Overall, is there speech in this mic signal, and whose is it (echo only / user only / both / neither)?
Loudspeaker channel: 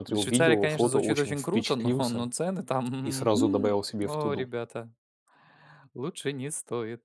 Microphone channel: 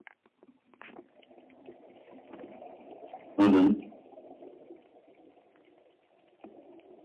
user only